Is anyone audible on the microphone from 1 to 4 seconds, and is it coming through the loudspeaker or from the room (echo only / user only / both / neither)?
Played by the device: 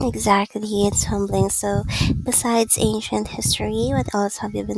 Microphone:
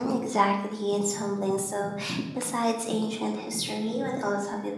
echo only